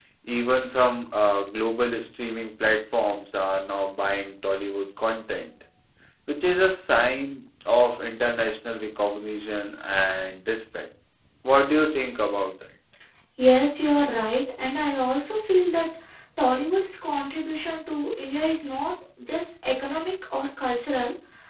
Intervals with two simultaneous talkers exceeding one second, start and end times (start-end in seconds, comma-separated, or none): none